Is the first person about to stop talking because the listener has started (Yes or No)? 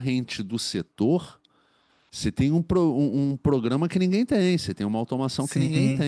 Yes